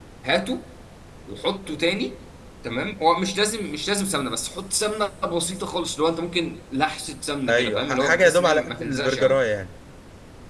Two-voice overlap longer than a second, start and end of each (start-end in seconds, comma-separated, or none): 7.5-9.4